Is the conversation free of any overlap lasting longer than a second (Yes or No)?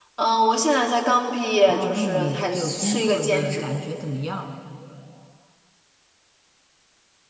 No